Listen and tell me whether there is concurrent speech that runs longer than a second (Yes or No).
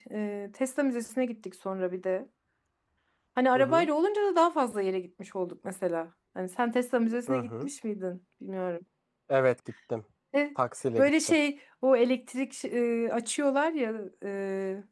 No